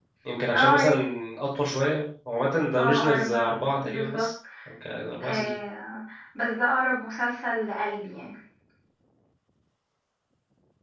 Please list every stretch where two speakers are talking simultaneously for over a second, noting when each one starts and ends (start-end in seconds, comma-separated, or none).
2.8-4.3